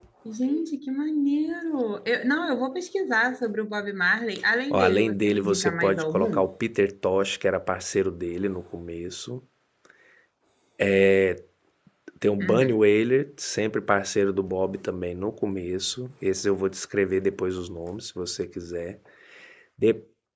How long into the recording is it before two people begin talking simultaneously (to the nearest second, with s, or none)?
5 s